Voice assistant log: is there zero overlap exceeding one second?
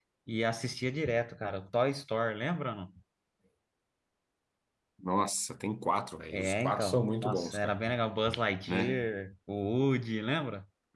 No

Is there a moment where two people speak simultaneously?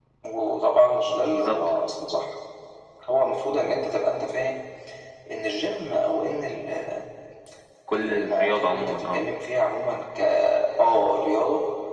Yes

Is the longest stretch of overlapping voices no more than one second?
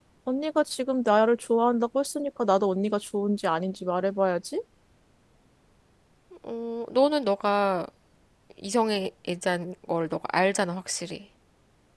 Yes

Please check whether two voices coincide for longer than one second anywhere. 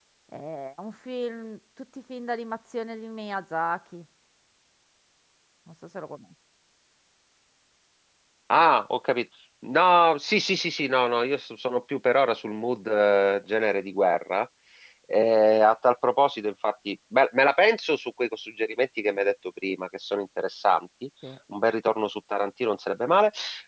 No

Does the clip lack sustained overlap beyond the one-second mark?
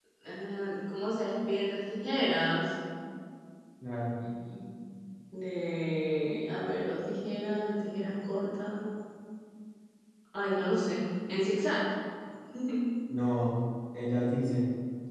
Yes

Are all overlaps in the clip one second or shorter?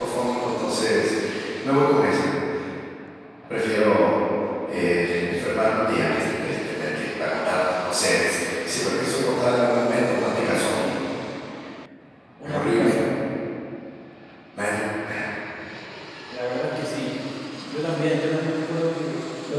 Yes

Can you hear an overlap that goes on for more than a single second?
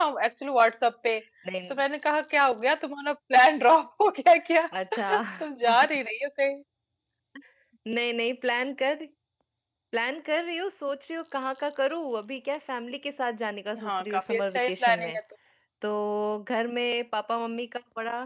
Yes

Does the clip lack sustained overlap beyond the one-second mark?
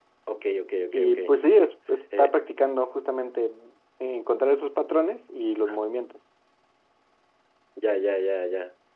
Yes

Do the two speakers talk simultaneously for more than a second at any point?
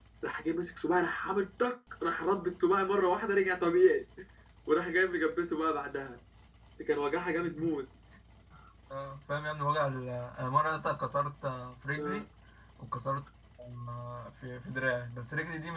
No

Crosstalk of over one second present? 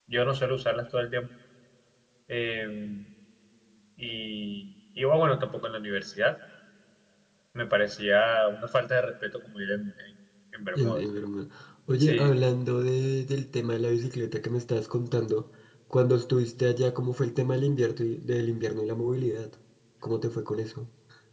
No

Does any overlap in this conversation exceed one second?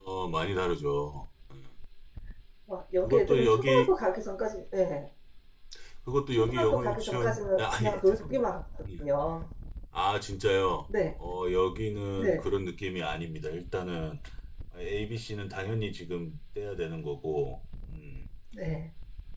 Yes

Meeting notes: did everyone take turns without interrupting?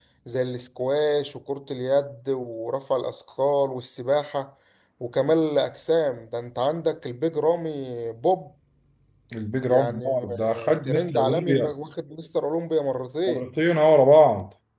No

